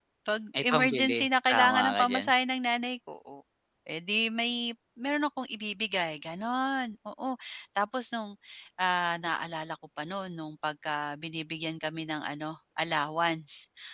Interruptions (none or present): present